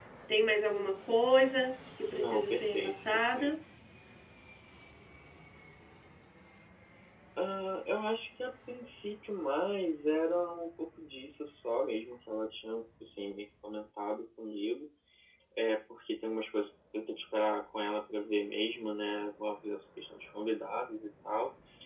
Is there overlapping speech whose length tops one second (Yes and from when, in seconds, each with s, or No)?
Yes, from 2.1 s